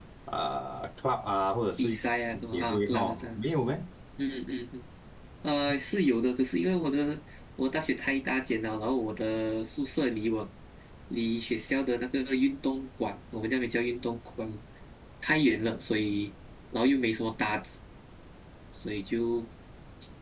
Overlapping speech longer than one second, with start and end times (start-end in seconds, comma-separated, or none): 1.8-3.4